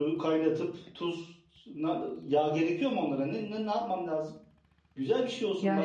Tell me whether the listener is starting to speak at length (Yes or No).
No